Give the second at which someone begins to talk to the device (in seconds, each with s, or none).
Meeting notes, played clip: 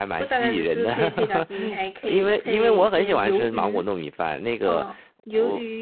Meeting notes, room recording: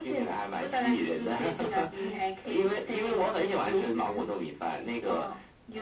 none